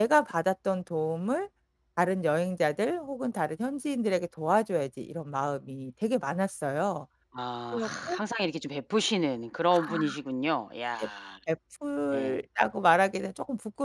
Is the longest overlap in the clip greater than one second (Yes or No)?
No